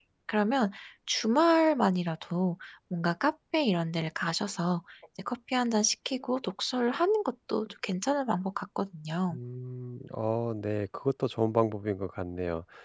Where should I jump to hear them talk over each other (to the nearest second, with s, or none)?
none